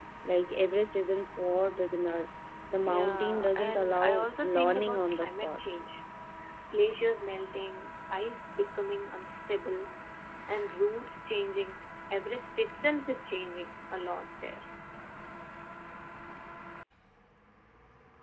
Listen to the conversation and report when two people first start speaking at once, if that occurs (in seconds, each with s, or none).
2.9 s